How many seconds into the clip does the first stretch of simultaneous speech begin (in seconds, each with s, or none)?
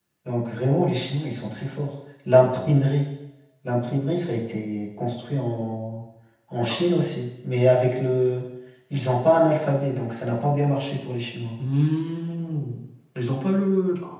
none